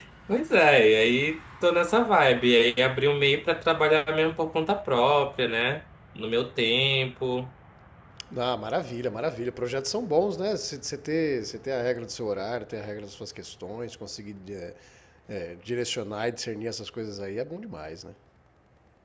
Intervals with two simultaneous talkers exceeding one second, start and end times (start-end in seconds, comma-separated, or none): none